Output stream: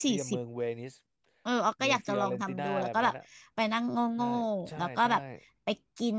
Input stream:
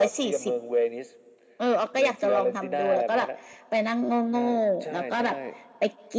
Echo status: present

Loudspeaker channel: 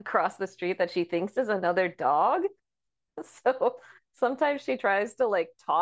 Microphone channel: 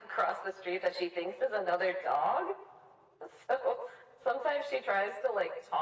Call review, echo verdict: present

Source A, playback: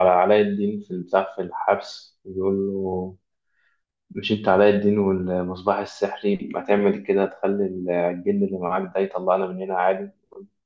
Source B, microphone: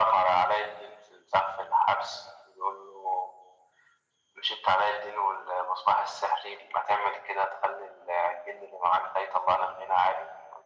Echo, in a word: present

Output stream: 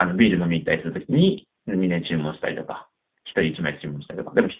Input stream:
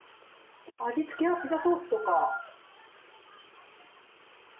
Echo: none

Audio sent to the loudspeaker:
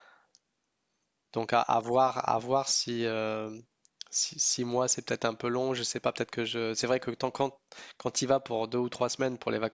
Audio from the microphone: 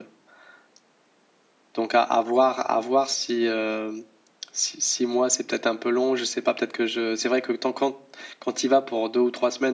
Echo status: present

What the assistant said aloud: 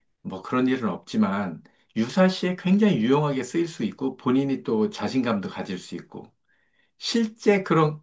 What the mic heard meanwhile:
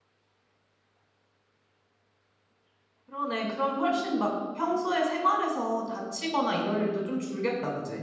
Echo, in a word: none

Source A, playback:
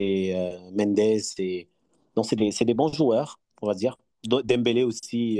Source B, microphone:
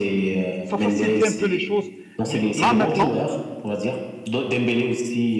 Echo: present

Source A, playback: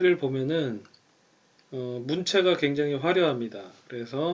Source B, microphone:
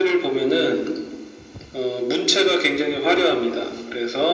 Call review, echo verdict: present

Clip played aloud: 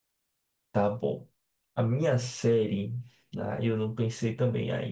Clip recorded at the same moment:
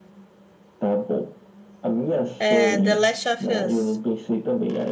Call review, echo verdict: present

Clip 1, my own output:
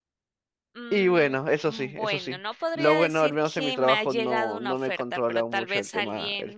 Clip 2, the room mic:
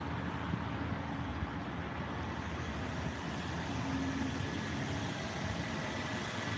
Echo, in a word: none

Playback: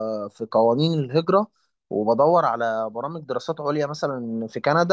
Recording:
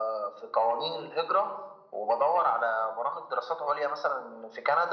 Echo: present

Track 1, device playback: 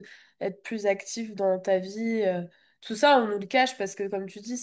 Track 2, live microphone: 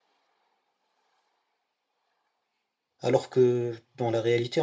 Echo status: none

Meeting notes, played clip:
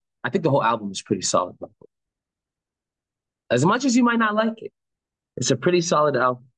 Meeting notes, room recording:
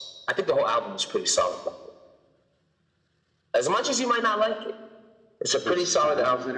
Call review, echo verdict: present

